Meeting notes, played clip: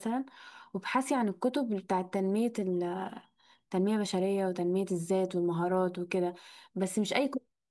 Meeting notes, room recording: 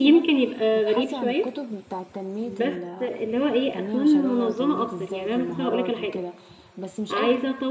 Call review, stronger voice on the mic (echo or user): user